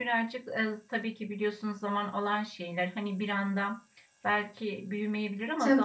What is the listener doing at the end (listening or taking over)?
listening